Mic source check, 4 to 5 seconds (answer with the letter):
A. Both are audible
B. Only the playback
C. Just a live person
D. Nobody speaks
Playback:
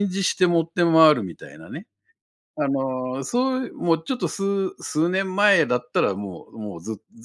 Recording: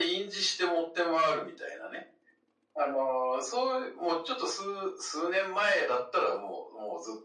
B